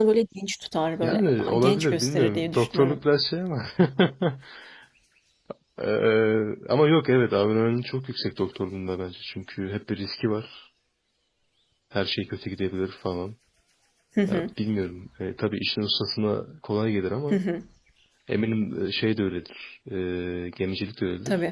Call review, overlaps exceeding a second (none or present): present